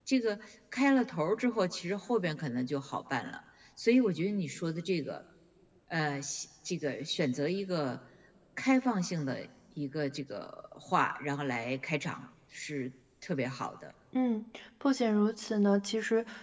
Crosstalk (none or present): none